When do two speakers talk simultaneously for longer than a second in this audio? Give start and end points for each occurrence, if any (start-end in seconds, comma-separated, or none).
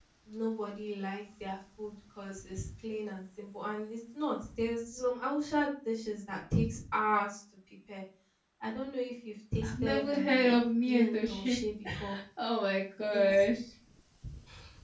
9.6-11.6